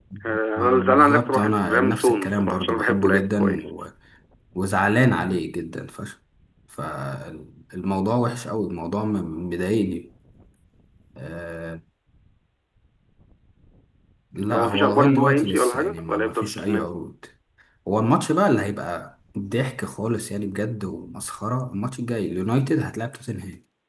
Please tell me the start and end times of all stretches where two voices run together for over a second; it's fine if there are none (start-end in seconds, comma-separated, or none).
0.6-3.7, 14.5-16.9